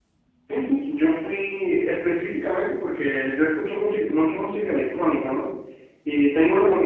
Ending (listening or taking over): listening